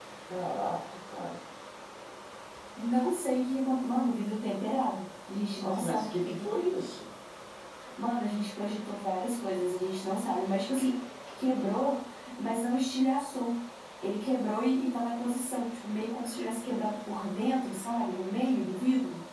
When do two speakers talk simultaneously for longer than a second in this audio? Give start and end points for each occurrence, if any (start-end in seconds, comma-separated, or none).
5.6-6.8